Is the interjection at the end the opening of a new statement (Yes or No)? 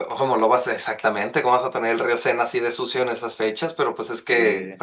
No